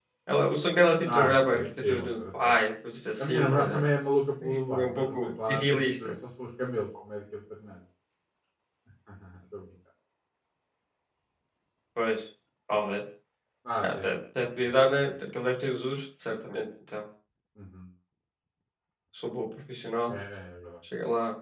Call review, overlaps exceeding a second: present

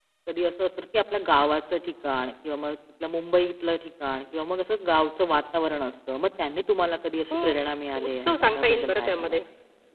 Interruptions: present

